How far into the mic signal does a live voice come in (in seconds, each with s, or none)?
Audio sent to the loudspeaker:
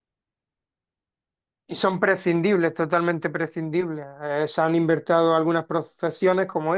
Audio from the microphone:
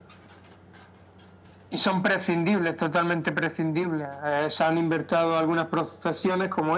none